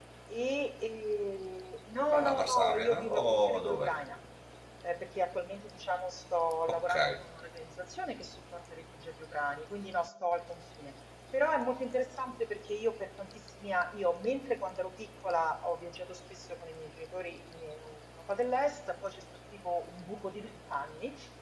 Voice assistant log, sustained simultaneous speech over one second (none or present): present